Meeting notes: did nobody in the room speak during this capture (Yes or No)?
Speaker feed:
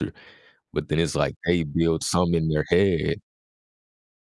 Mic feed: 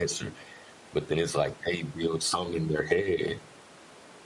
Yes